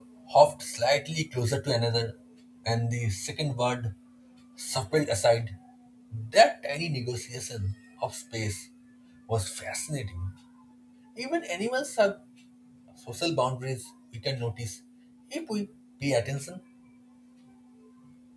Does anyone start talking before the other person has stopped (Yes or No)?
No